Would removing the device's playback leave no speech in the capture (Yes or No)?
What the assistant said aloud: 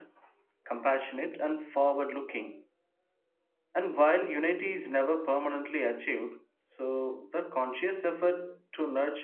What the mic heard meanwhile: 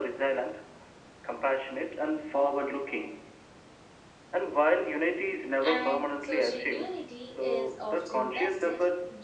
No